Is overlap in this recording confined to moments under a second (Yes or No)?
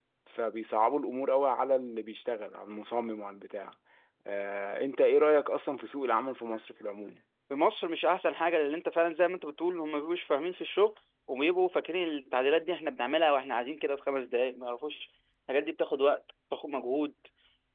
Yes